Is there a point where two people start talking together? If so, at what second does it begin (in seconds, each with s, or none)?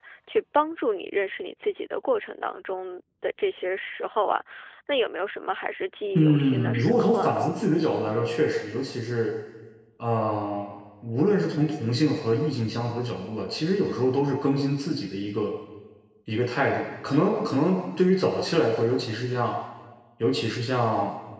6.2 s